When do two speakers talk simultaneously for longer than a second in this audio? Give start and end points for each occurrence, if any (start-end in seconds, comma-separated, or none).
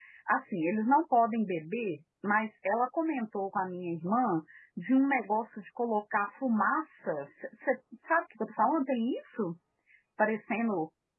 none